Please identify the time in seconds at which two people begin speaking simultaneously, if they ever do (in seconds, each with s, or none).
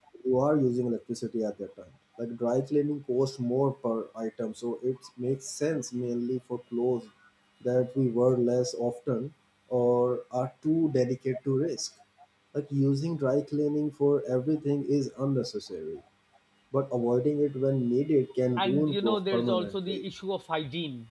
18.6 s